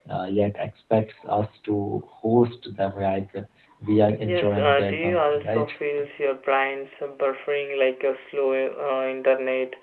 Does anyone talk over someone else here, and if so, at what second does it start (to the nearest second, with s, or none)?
4 s